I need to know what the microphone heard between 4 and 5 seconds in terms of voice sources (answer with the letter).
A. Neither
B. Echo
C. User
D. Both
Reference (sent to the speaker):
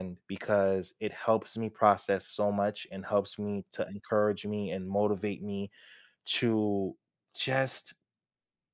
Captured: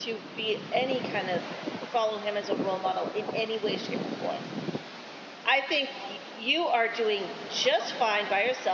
C